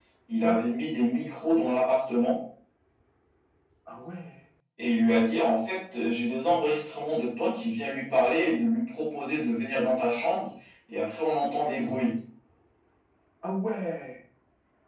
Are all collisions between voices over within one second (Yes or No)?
Yes